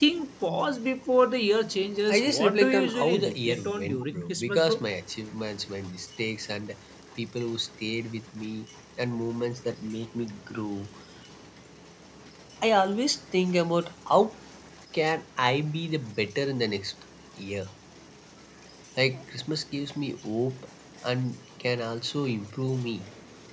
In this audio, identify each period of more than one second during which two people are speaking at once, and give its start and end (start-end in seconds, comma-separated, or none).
2.1-4.8